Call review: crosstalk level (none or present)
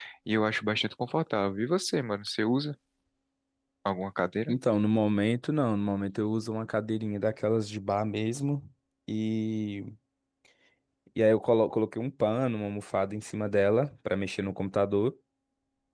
none